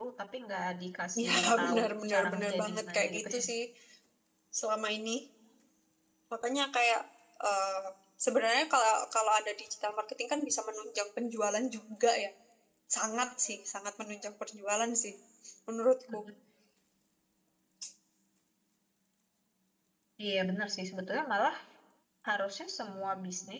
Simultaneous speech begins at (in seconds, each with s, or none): 1.3 s